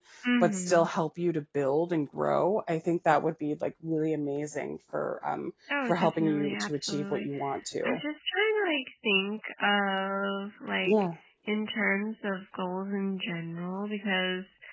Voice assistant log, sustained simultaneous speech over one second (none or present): present